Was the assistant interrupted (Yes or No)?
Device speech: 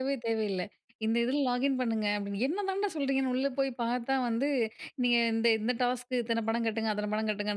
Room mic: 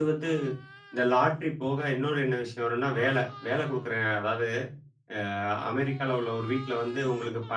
Yes